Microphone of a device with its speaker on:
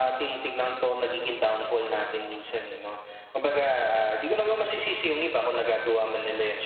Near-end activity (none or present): none